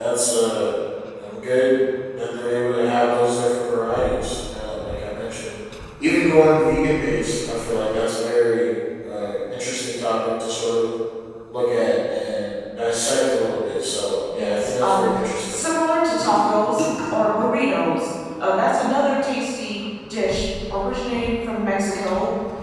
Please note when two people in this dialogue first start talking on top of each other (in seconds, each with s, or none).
14.3 s